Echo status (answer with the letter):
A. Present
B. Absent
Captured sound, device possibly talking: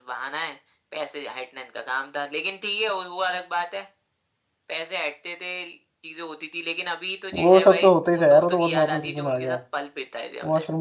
A